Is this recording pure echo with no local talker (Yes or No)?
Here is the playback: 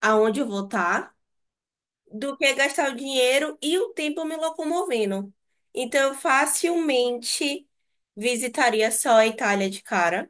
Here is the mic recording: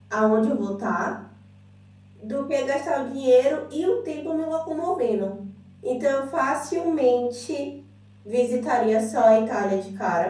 Yes